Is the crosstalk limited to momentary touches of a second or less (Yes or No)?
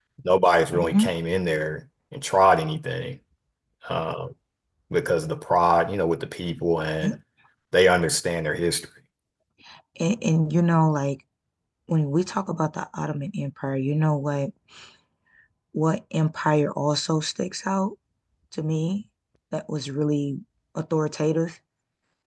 Yes